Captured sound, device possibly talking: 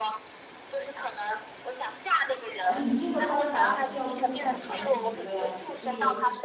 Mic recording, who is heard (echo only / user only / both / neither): both